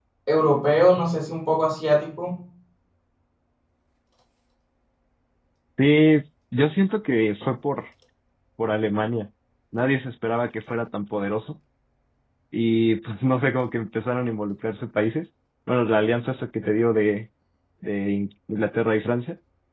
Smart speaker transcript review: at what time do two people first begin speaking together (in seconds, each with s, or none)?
none